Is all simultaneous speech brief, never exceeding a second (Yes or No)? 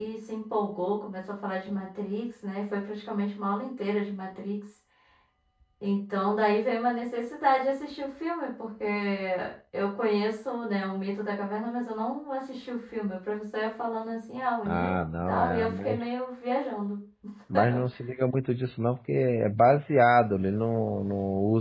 No